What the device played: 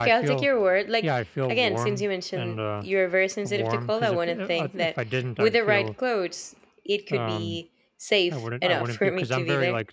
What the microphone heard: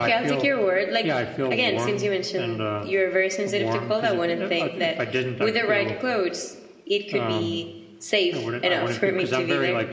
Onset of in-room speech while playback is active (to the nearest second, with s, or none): none